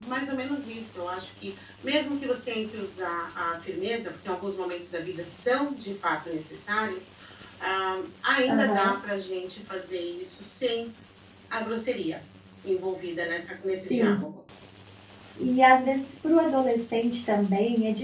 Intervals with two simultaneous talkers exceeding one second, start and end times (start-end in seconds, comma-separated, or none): none